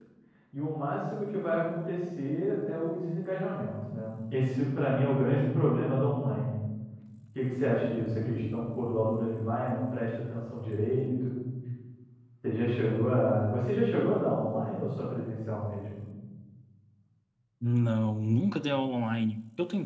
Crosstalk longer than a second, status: none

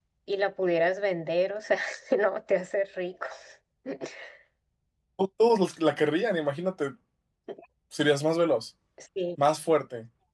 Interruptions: none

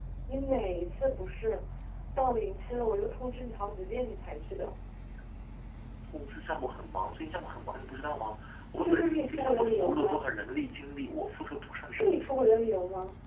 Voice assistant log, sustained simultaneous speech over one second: present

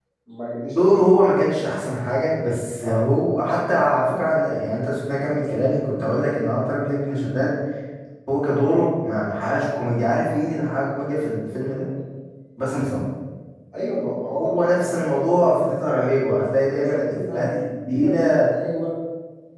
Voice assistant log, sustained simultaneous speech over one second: present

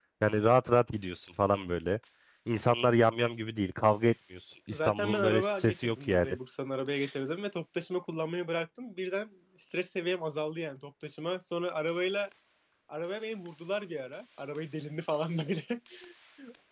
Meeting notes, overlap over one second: present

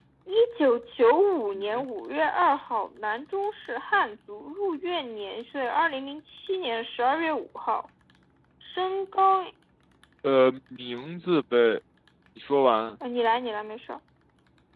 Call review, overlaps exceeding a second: none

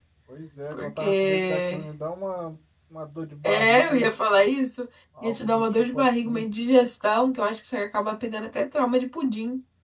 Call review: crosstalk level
present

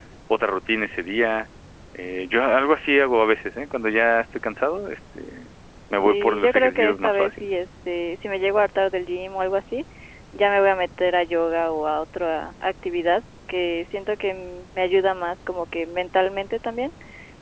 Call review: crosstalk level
present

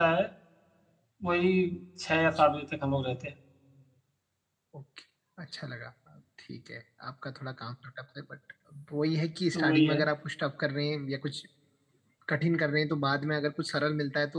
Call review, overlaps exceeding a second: none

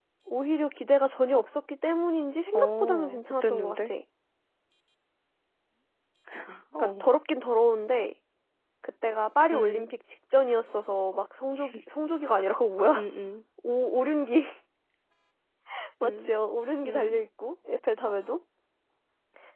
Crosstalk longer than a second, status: present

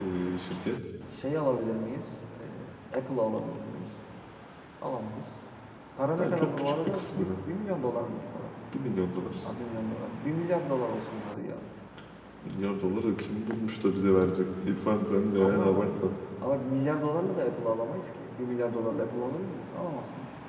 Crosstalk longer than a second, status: present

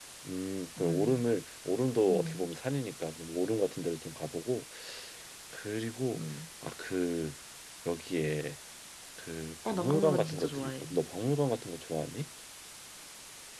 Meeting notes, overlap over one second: present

